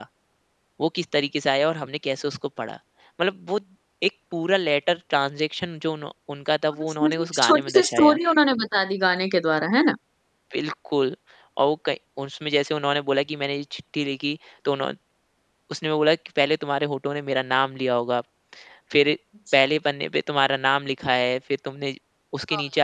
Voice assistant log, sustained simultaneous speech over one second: present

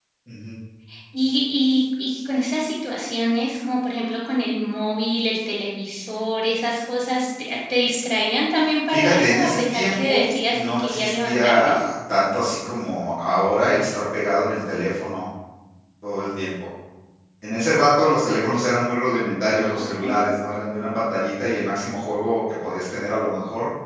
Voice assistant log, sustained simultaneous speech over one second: present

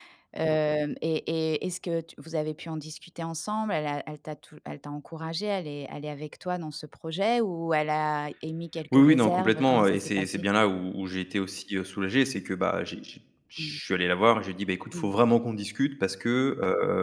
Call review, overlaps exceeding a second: present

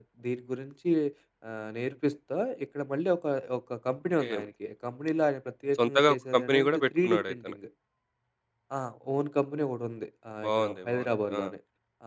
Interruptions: present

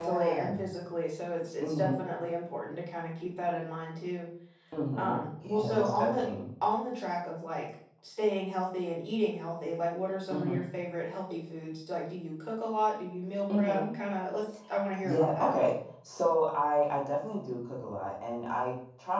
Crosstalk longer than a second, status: present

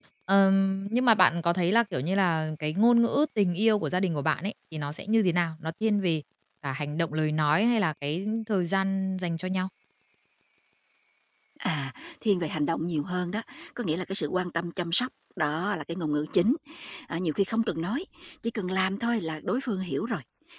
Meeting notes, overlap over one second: none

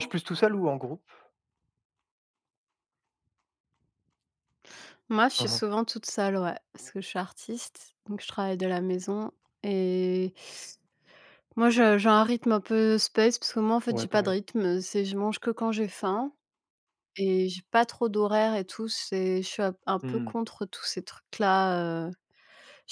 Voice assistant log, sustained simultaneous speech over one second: none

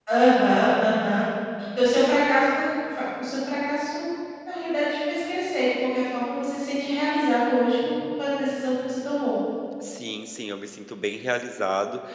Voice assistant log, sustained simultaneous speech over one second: none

